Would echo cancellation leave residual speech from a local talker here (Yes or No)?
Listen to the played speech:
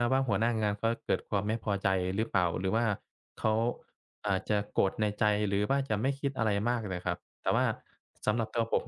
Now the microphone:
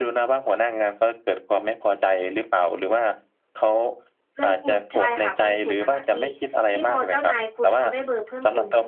Yes